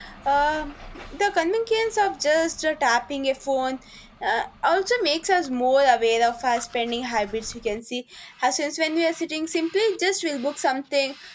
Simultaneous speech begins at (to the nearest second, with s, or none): none